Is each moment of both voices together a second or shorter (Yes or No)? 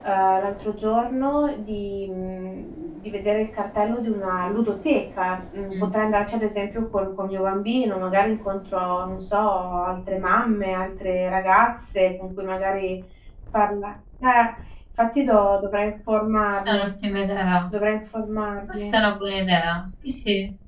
Yes